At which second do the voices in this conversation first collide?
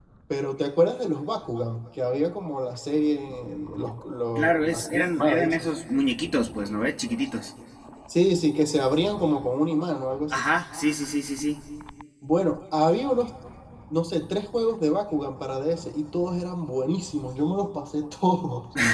4.4 s

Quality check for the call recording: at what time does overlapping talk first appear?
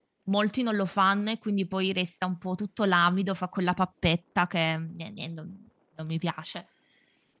none

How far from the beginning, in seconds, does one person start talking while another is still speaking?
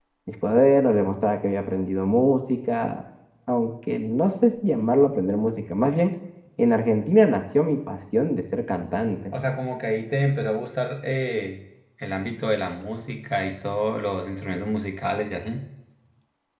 none

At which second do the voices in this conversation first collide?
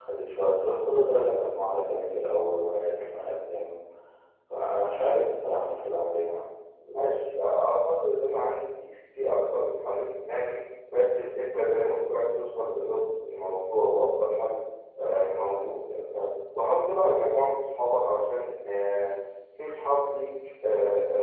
none

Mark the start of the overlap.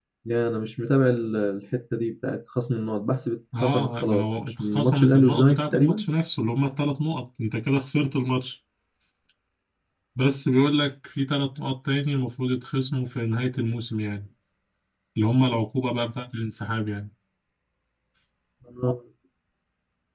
3.5 s

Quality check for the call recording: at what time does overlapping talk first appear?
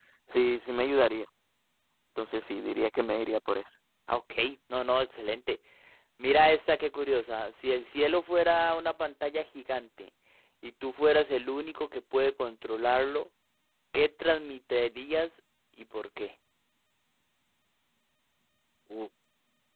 none

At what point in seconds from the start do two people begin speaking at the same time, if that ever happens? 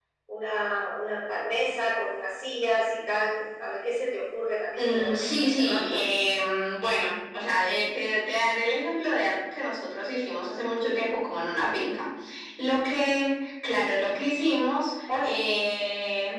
4.8 s

